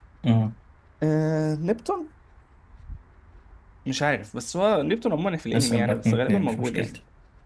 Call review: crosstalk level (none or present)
present